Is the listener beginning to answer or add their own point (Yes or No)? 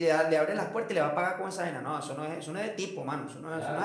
Yes